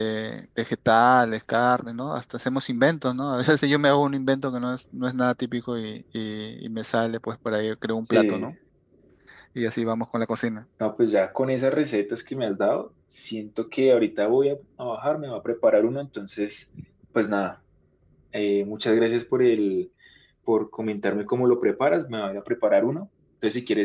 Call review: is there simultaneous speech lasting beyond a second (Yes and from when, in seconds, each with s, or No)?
No